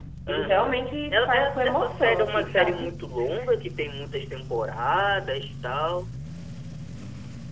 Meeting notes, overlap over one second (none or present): present